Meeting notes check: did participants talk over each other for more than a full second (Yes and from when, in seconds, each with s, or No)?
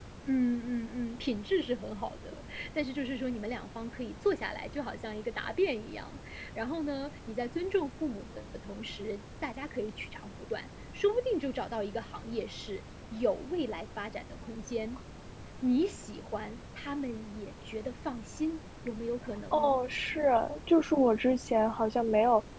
No